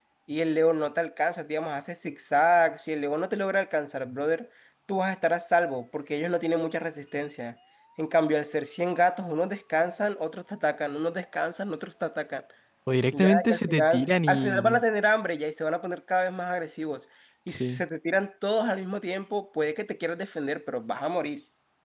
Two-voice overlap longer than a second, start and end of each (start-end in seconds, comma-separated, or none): 13.1-14.8